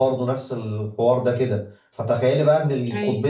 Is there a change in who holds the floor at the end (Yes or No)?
No